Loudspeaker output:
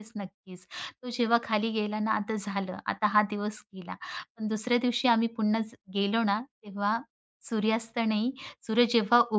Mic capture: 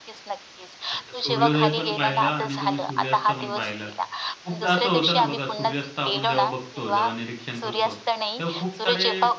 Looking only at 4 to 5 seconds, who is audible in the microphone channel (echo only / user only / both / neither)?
both